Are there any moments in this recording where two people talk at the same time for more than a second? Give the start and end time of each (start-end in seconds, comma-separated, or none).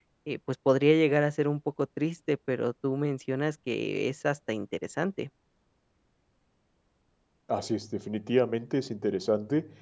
none